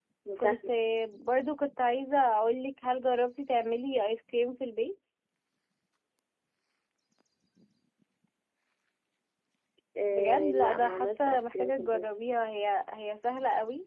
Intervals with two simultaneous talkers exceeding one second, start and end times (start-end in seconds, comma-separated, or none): 10.1-12.1